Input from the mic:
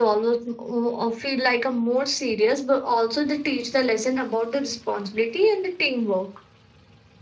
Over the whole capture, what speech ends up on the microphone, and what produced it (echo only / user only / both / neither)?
echo only